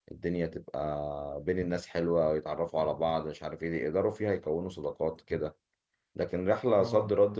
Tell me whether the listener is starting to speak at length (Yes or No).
No